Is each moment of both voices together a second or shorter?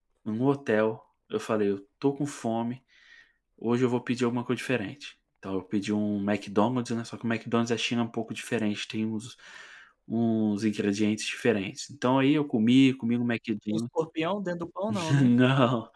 Yes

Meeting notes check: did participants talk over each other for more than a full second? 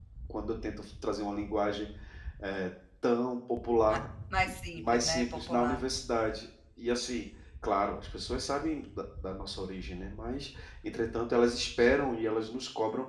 Yes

